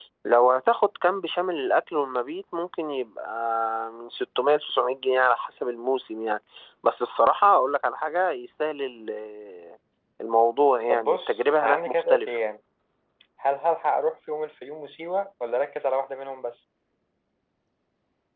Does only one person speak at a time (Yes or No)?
No